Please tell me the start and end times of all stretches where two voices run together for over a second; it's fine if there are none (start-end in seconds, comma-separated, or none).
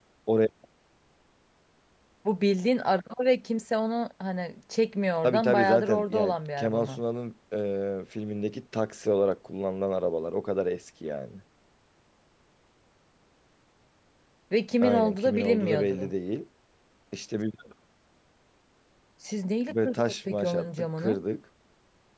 5.2-7.0, 14.8-16.1, 19.7-21.2